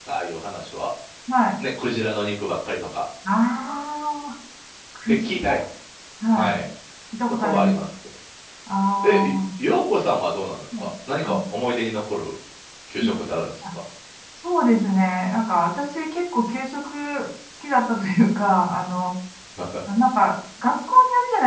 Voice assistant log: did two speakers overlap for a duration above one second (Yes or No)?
No